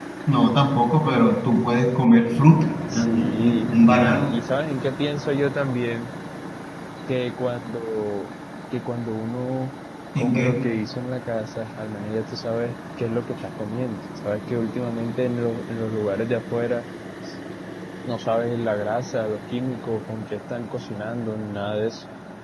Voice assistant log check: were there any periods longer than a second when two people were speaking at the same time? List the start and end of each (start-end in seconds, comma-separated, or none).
2.9-4.3